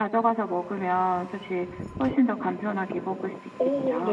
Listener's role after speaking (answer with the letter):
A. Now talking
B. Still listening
A